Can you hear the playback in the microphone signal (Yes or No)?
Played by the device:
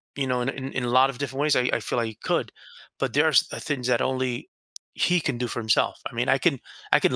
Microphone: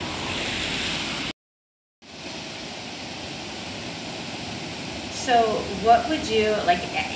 No